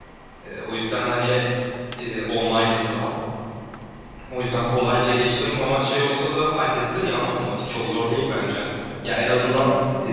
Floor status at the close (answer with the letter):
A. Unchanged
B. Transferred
A